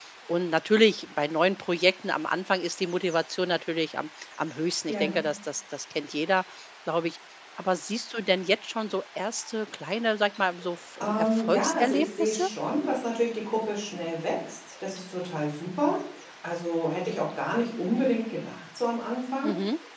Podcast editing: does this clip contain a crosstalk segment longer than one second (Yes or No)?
Yes